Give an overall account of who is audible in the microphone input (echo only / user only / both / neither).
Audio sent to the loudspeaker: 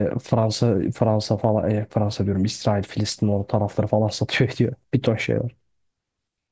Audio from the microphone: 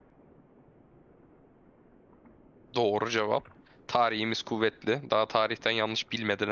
user only